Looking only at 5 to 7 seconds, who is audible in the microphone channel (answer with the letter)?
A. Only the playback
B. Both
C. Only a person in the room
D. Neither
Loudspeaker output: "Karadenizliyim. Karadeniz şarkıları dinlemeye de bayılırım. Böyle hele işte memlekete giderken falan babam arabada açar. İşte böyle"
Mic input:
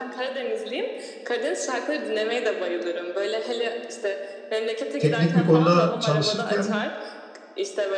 B